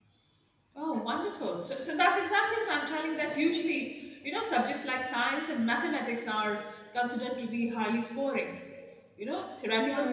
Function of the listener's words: listening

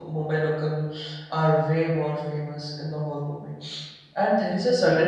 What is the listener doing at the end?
listening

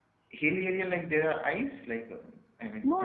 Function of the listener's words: taking over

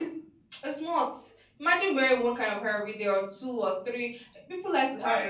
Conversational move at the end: taking over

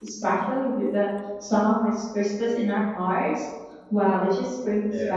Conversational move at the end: listening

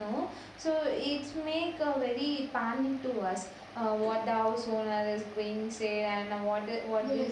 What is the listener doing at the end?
taking over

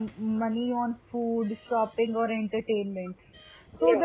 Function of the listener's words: listening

